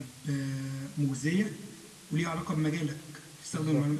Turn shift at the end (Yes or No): No